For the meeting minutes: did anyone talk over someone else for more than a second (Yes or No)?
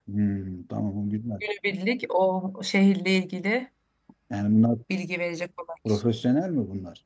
No